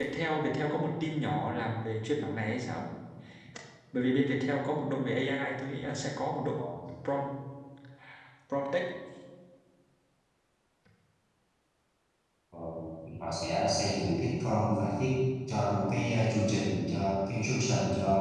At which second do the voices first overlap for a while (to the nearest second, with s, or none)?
none